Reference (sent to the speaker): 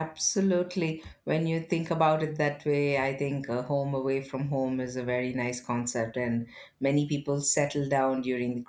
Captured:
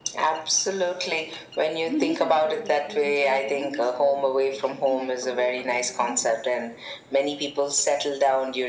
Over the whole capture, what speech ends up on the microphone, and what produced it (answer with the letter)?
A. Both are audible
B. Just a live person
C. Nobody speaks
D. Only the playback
A